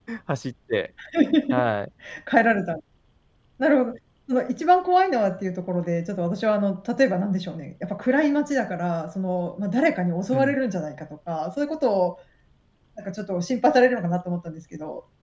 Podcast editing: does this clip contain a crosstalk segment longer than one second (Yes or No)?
No